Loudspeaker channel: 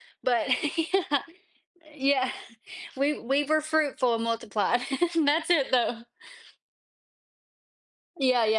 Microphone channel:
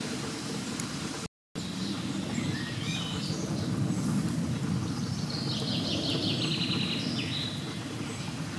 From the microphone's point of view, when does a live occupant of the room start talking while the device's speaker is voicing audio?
none

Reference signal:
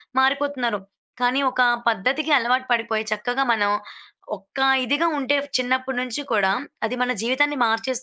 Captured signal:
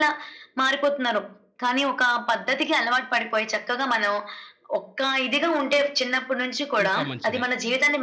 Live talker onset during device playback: 6.8 s

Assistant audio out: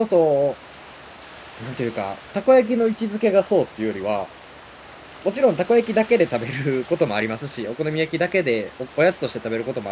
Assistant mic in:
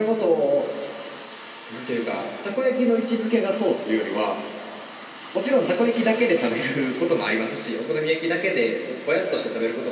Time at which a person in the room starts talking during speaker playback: none

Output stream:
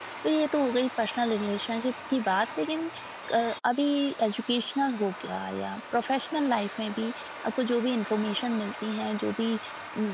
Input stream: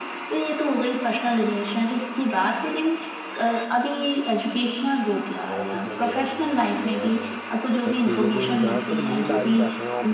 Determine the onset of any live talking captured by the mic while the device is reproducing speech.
5.5 s

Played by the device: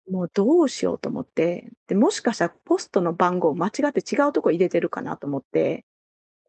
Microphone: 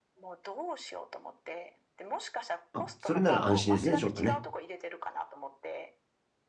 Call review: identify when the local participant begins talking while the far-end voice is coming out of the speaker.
2.7 s

